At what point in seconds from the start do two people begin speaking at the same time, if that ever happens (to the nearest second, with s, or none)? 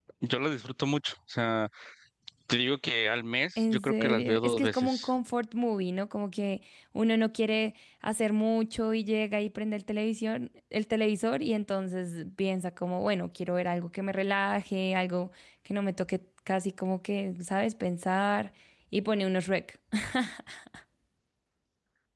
4 s